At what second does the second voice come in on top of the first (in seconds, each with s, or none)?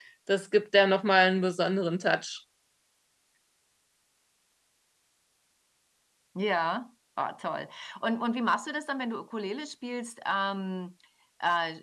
none